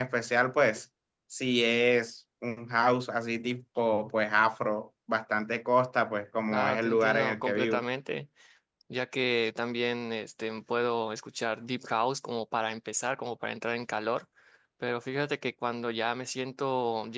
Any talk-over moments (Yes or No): Yes